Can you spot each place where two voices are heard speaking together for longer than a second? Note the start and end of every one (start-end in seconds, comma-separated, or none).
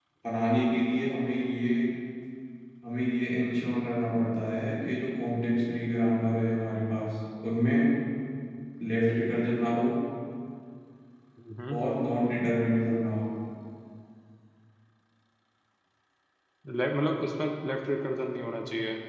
none